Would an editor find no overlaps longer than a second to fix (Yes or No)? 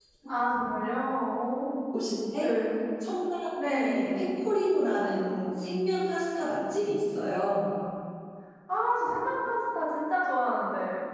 Yes